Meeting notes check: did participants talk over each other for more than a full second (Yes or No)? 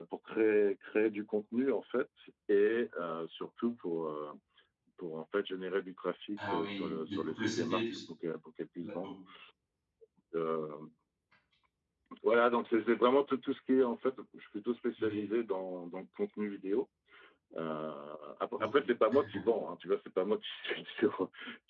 Yes